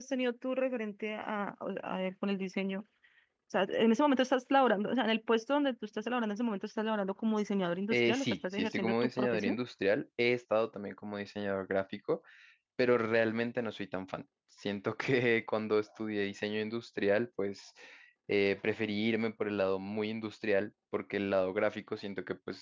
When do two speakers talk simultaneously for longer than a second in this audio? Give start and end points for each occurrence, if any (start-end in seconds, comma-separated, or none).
7.9-9.6